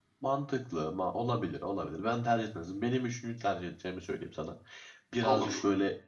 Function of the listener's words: listening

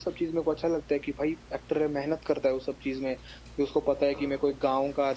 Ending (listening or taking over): listening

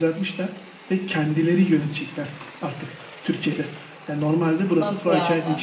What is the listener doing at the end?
listening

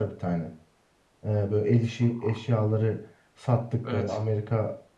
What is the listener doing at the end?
listening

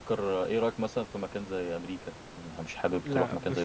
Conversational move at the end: taking over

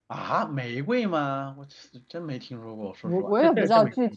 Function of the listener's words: taking over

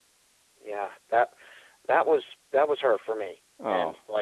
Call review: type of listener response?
listening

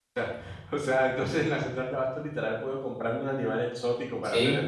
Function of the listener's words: taking over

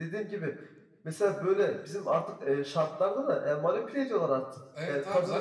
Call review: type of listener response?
taking over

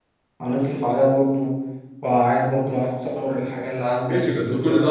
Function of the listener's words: taking over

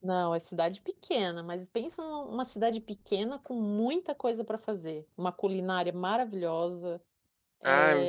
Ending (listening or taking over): listening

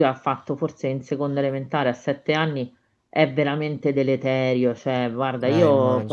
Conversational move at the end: listening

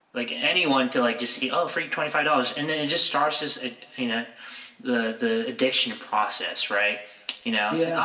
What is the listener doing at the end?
listening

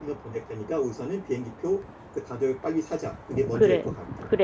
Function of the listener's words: taking over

